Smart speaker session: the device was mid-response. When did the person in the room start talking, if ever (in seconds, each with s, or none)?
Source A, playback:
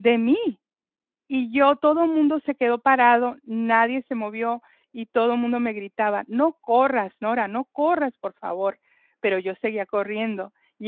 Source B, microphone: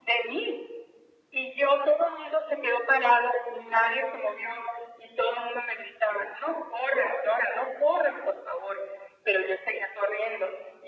none